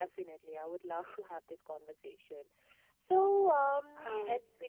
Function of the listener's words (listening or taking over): listening